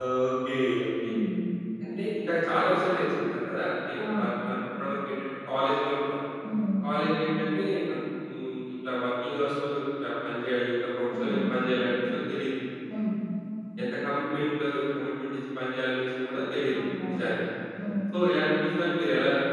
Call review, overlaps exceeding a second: none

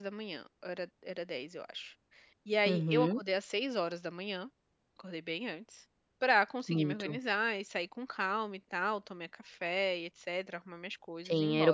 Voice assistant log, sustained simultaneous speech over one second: none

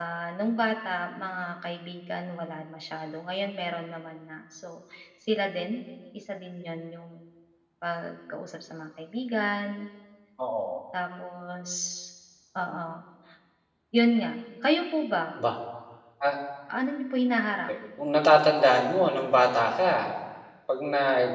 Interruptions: none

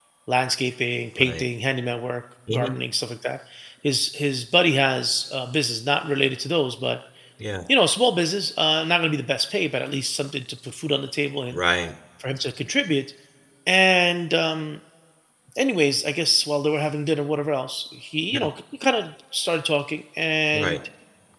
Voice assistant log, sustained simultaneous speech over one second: none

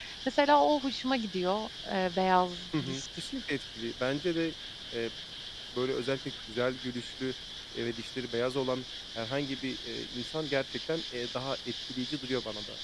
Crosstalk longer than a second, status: none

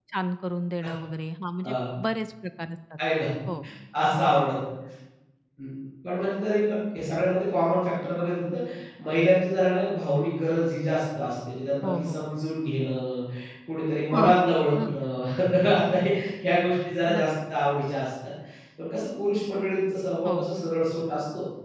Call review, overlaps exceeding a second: none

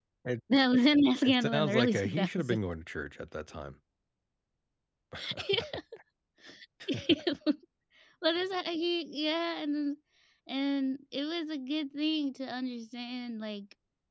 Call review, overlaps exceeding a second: present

